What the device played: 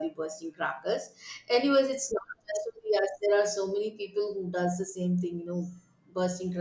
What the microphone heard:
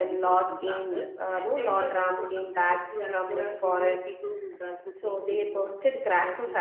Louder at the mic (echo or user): user